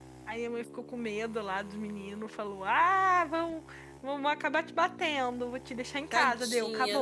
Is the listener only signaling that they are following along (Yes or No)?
No